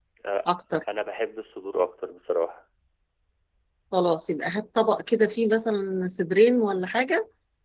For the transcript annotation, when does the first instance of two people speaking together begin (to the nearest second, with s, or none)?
none